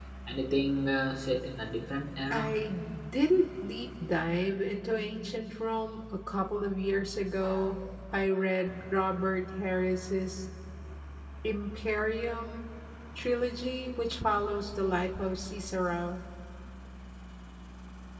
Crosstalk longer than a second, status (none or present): none